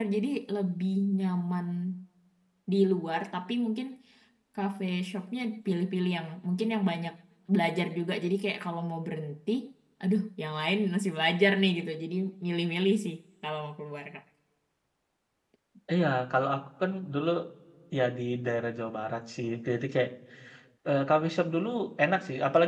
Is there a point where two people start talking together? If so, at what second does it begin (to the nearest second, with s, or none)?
none